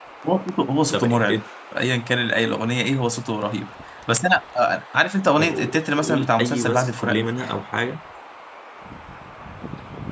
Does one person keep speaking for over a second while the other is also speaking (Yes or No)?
Yes